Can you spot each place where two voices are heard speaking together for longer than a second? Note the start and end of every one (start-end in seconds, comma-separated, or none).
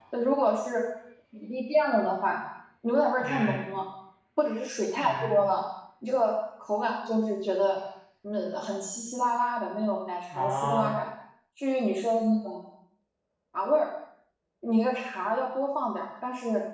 none